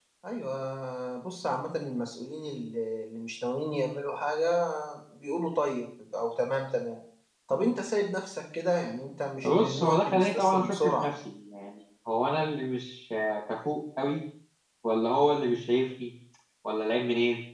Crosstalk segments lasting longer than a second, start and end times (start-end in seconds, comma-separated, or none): 9.4-11.1